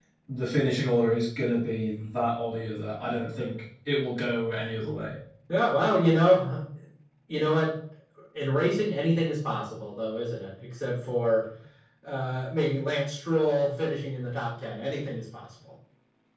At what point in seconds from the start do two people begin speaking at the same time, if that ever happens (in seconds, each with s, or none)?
none